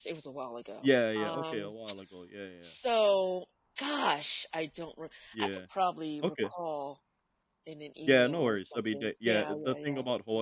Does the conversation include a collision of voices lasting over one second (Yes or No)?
Yes